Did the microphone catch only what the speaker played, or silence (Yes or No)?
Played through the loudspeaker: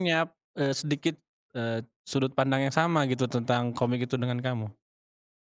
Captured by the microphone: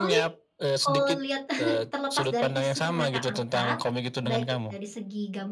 No